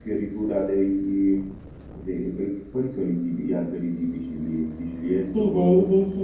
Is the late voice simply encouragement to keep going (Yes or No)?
No